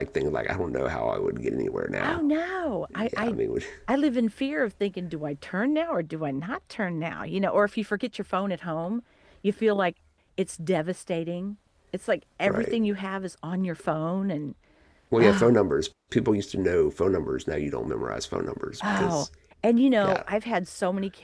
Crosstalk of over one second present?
No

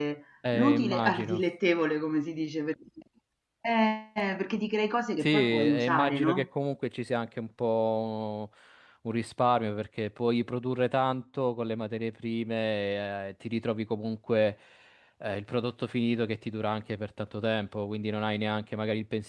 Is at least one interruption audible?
Yes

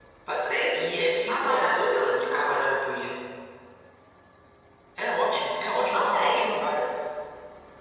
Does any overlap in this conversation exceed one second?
Yes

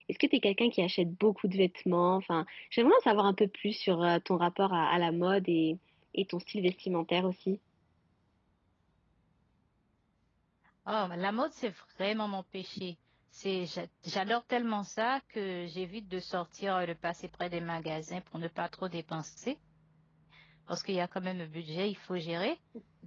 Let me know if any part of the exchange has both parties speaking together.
No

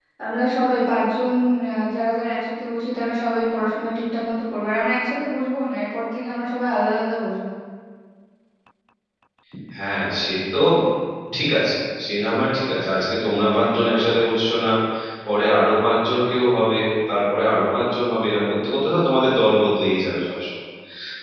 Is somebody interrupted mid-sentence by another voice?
No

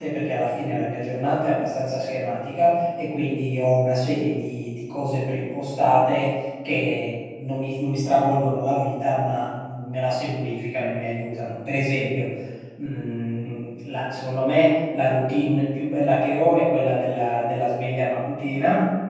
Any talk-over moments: No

